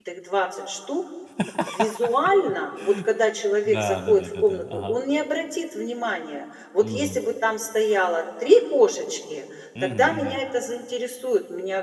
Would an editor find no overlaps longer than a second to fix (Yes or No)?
No